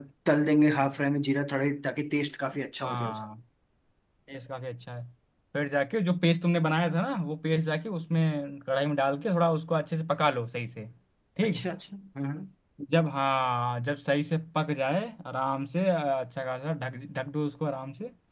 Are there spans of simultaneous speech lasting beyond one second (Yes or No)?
No